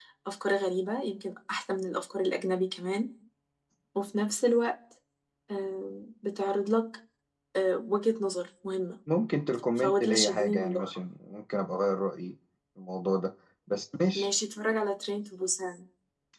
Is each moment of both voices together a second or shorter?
No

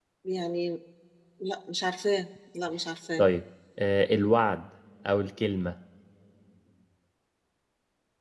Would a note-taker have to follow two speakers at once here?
No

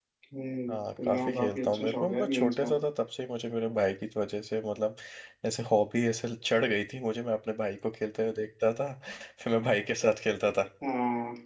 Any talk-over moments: Yes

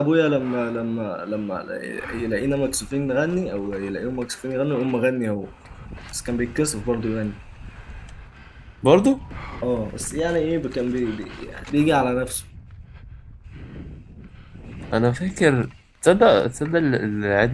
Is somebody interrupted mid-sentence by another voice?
No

